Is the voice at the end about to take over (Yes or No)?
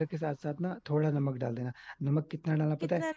No